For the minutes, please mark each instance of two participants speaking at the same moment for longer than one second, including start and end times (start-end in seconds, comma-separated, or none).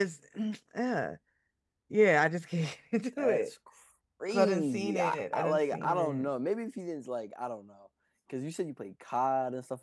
4.3-6.3